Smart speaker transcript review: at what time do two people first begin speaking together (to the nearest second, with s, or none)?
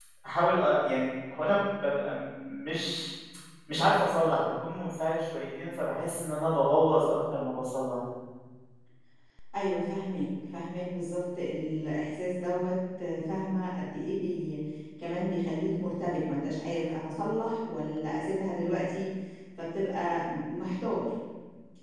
none